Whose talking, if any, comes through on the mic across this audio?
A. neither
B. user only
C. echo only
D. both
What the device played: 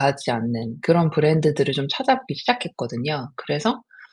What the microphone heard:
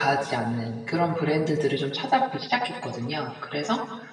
C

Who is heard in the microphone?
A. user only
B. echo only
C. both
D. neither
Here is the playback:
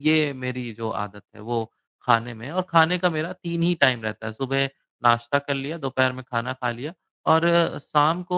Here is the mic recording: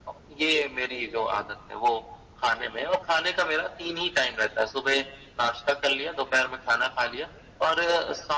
B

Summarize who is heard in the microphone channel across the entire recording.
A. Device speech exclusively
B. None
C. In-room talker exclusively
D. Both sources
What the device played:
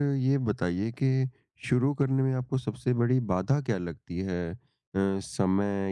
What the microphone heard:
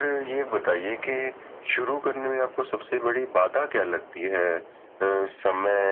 A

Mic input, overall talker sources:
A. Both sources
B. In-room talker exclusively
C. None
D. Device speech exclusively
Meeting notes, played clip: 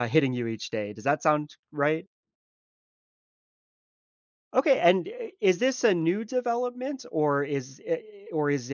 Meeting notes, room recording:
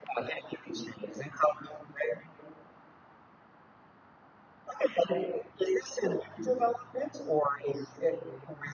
D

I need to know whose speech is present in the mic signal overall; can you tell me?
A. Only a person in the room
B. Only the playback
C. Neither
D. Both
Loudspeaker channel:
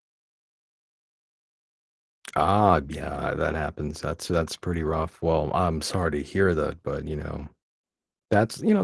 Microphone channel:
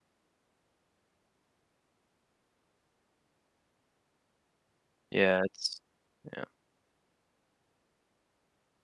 A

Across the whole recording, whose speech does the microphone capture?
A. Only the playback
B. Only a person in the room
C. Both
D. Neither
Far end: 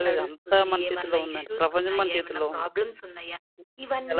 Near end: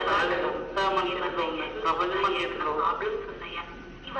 A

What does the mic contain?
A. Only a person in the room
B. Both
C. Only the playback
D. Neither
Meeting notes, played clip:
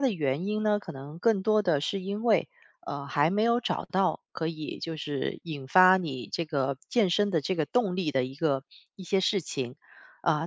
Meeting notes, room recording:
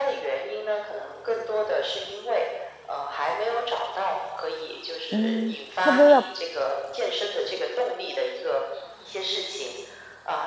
B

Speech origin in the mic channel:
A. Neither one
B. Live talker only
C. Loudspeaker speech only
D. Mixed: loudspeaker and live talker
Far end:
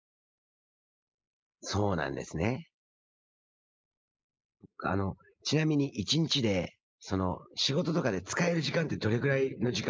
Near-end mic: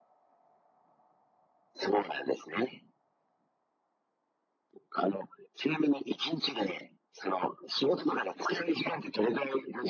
C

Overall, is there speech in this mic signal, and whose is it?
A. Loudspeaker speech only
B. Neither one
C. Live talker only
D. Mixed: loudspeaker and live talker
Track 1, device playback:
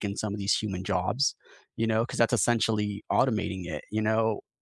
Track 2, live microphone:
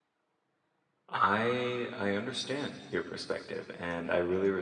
C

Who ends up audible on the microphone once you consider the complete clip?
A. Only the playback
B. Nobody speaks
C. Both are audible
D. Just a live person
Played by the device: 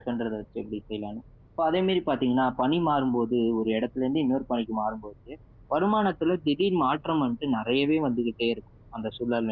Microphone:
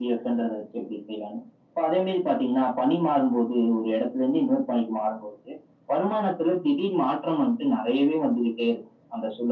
A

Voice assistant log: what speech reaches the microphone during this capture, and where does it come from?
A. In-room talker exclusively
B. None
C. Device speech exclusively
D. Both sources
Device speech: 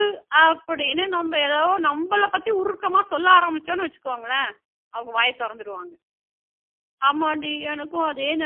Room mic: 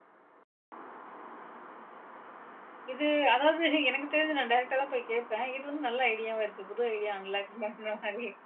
A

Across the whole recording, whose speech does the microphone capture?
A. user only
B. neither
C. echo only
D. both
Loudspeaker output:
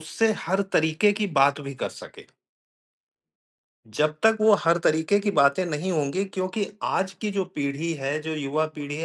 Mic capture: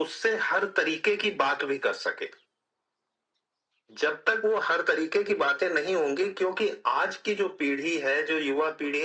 C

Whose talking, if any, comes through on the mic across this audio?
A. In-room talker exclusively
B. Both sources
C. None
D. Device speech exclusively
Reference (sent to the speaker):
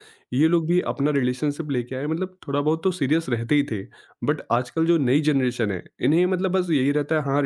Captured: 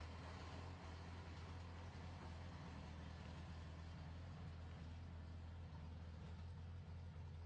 C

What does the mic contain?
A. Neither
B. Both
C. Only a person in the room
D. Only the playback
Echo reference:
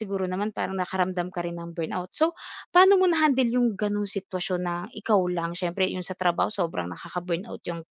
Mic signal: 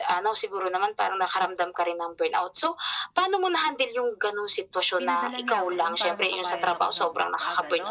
B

